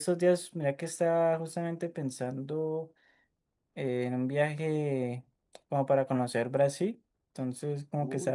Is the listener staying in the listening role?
Yes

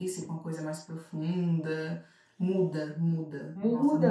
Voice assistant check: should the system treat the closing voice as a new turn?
Yes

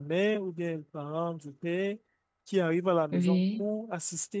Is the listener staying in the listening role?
Yes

